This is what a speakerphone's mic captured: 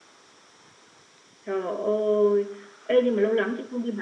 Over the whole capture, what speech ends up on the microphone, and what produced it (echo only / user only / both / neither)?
echo only